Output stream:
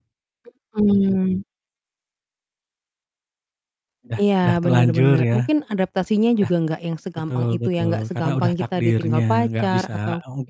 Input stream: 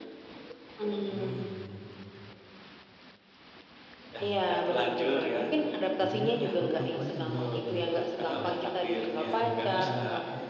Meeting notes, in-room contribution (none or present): present